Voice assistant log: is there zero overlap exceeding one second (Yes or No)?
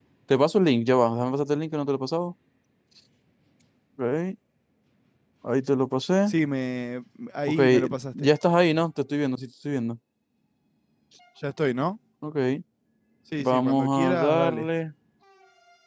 No